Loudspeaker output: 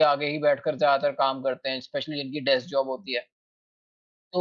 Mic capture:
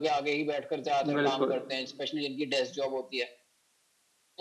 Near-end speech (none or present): present